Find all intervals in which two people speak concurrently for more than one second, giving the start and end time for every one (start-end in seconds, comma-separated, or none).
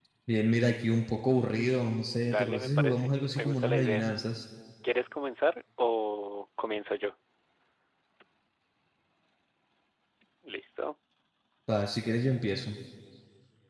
2.2-4.0